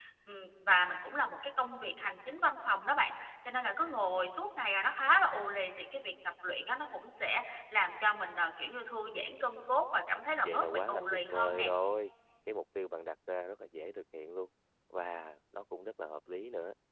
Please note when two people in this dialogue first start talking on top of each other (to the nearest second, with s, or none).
10 s